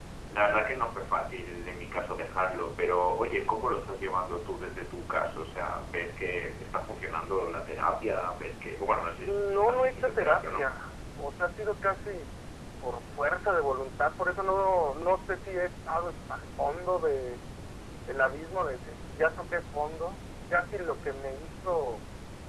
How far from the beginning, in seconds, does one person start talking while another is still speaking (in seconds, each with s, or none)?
9.2 s